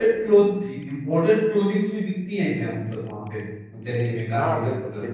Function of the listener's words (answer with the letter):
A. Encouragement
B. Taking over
B